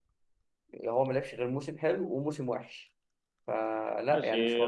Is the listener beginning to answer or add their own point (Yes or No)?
Yes